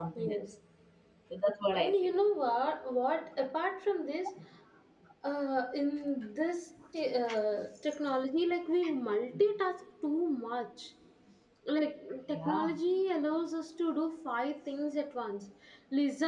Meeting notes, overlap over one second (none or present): none